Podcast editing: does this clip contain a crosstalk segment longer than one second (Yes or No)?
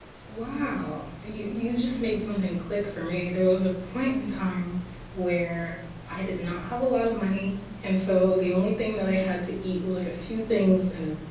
No